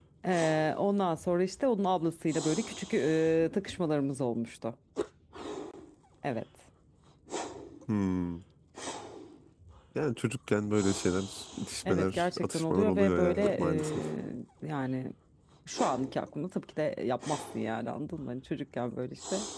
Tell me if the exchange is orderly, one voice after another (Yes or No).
No